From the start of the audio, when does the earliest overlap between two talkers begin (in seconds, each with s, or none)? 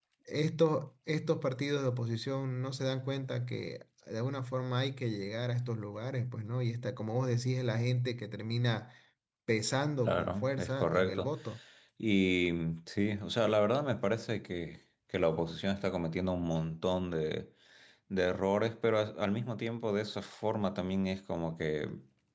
10.1 s